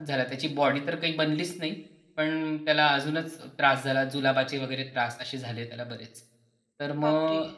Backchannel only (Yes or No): Yes